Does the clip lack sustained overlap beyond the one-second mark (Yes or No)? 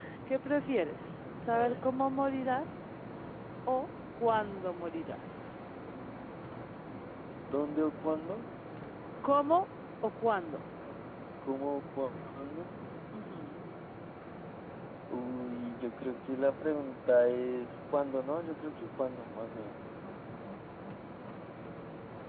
Yes